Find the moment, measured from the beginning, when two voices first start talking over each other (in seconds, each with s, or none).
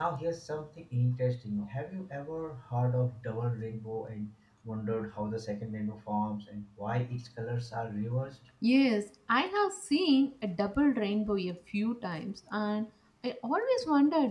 none